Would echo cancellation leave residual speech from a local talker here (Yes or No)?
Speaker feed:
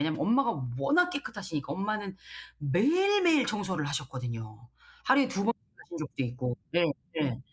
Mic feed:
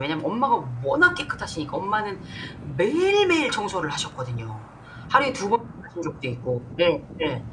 No